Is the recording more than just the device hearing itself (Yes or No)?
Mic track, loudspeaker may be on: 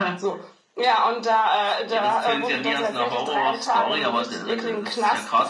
No